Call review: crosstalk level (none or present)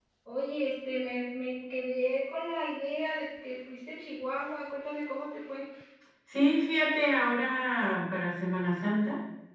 none